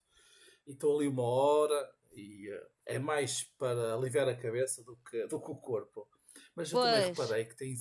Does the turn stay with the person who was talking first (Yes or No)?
Yes